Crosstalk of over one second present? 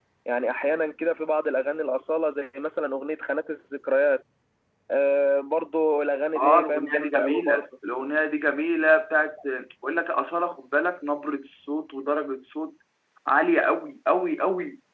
Yes, from 6.4 s

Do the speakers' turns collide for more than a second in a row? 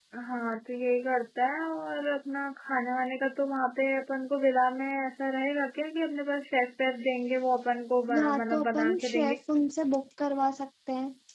Yes, from 8.1 s

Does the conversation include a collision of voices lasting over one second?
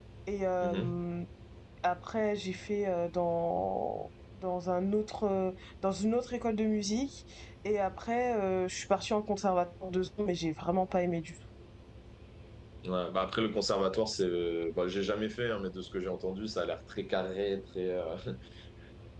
No

